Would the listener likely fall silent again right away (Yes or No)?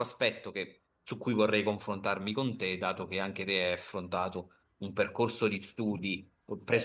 Yes